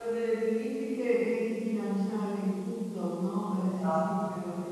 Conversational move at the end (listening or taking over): taking over